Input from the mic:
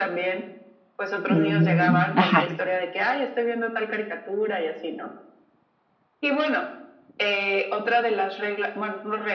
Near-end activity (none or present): present